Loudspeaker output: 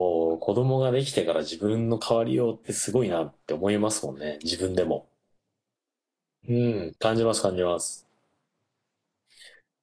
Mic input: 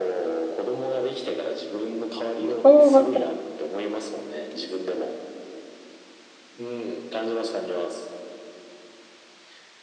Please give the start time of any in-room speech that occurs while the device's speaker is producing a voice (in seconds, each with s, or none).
2.6 s